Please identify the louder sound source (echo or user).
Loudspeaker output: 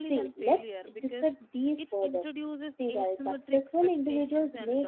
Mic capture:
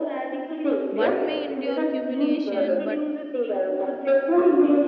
echo